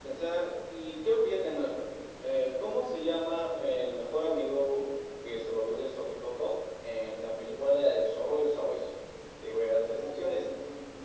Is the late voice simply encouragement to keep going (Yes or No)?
Yes